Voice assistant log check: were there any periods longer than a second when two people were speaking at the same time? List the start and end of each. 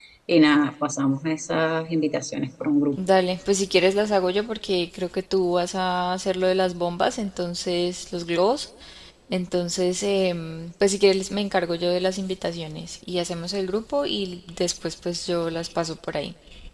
none

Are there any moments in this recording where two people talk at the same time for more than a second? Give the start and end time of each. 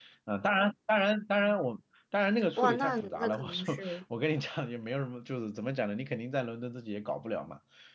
2.6-4.0

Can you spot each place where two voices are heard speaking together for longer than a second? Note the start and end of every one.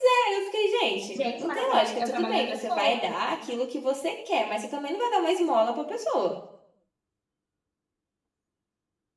1.2-3.2

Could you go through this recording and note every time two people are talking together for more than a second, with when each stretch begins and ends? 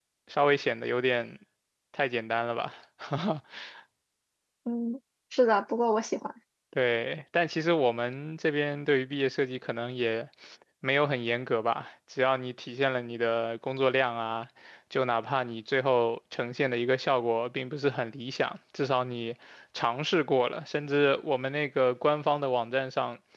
none

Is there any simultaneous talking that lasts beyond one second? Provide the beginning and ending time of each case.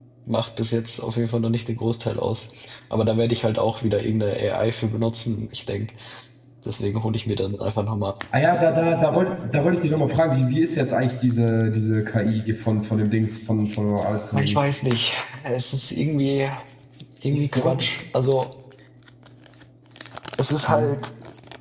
none

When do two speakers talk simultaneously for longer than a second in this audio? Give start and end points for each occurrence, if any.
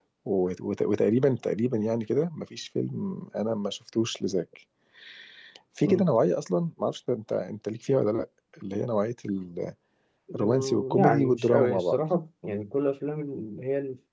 10.3-12.0

